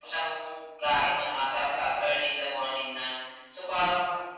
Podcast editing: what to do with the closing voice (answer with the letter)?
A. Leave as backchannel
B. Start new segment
A